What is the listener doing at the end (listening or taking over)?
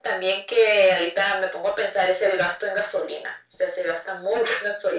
listening